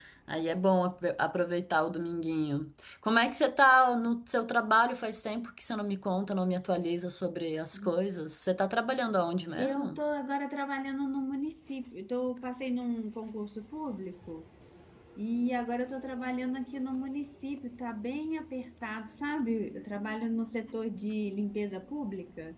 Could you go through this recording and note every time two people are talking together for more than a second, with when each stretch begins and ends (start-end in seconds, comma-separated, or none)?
none